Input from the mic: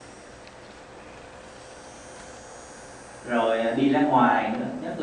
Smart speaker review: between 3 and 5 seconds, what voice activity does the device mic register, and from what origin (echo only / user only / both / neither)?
user only